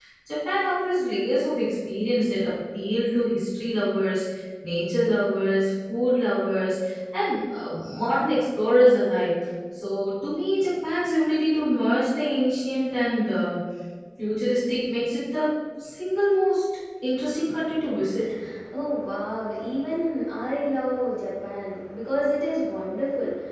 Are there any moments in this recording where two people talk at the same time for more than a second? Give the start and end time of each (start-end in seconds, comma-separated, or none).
none